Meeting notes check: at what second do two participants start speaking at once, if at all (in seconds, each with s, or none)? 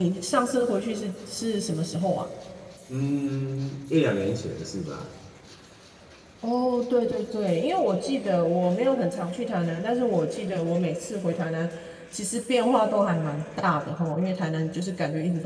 none